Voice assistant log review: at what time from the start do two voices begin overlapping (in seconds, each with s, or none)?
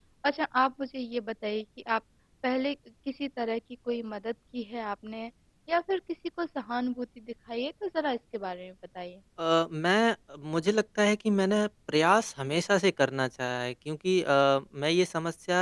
none